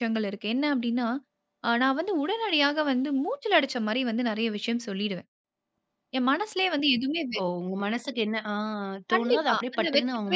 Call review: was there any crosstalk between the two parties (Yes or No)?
Yes